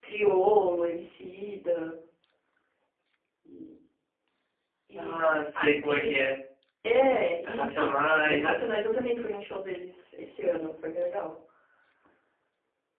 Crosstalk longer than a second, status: present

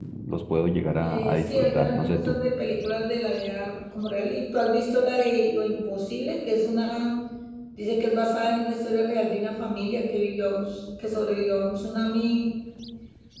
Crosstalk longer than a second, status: present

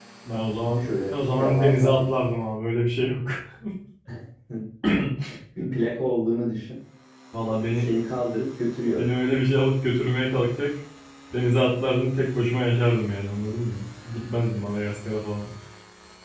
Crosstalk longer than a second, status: present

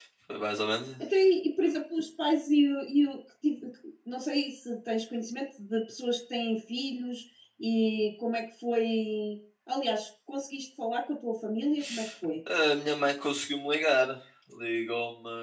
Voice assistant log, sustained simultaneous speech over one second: none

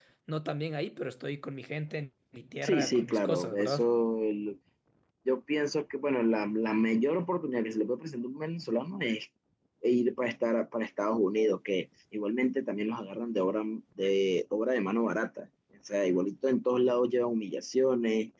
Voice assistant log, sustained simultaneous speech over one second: present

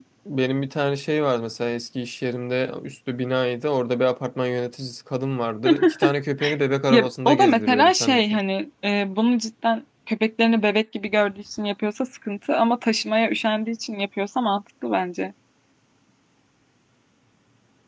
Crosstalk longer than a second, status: present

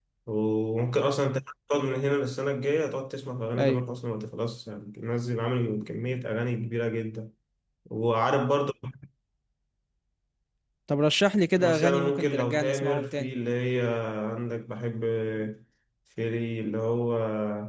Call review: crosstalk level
present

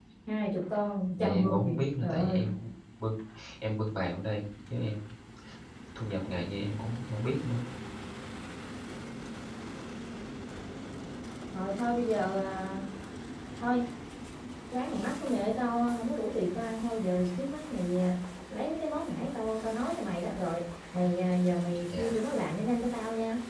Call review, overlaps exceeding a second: present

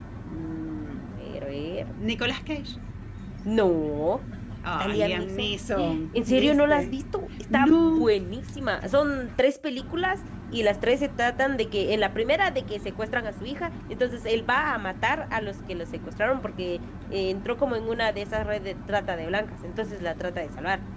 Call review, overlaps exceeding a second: present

